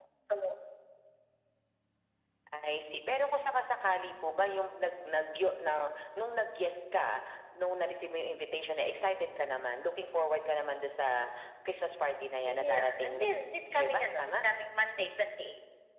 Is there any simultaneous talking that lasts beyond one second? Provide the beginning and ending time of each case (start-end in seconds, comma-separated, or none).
12.5-14.4